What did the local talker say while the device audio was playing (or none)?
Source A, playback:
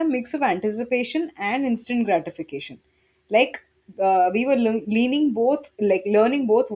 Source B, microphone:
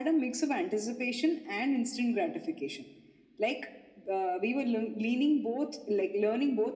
none